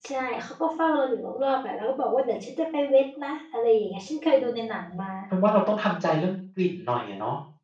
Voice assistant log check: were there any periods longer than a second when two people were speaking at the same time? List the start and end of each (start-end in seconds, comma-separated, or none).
none